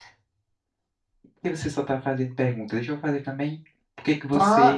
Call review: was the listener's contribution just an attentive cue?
No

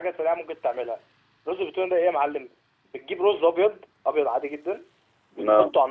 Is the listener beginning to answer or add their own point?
No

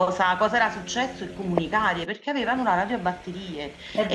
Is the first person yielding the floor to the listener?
No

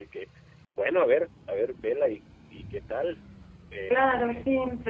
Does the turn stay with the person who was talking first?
No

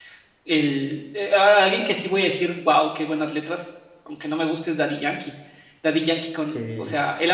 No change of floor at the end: Yes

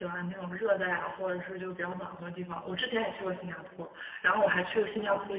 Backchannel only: Yes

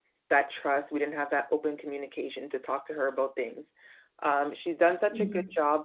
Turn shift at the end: No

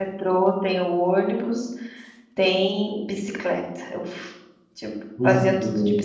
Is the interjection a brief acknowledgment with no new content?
Yes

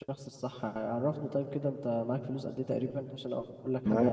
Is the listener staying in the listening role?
No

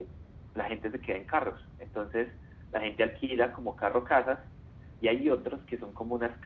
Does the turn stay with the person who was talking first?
Yes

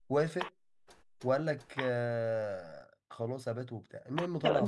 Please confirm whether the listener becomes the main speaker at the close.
Yes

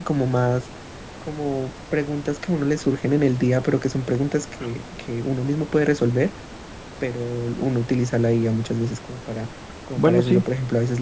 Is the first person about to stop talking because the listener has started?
No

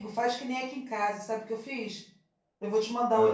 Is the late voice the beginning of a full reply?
No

